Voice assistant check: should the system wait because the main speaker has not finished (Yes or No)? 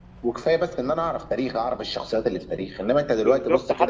No